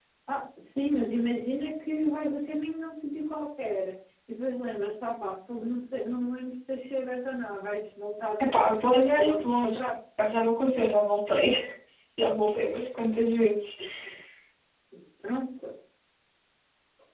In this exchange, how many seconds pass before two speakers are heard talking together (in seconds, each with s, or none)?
8.4 s